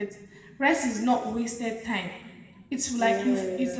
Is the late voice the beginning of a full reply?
No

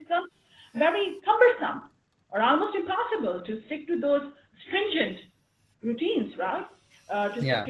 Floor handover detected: No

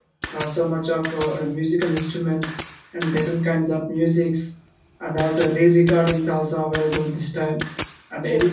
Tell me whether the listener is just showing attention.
Yes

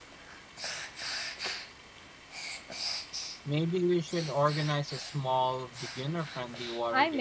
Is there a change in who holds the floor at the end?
Yes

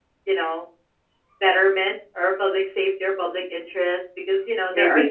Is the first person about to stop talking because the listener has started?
No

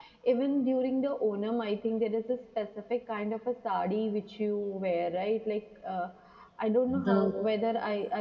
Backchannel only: Yes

